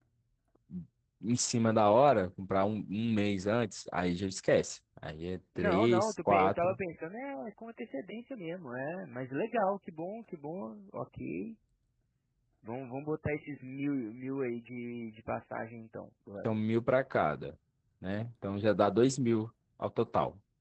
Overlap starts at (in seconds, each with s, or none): 5.5 s